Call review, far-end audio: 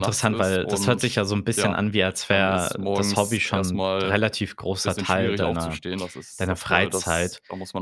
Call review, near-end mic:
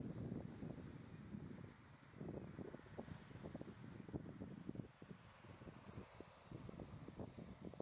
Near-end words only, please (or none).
none